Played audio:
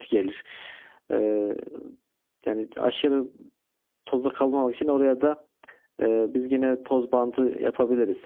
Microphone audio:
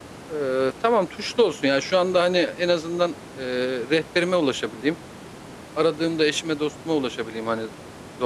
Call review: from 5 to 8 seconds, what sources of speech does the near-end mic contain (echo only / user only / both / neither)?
user only